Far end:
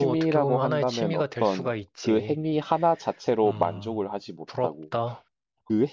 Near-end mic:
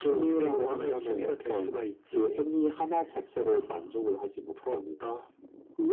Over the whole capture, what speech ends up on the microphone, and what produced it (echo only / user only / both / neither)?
echo only